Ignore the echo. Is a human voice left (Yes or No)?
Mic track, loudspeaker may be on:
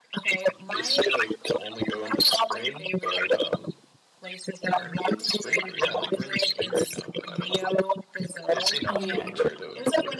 Yes